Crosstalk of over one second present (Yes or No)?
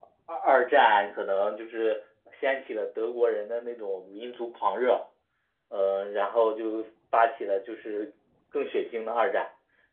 No